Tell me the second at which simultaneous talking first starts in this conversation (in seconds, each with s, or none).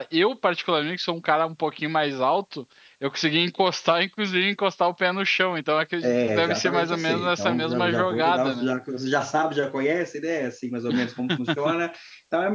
6.0 s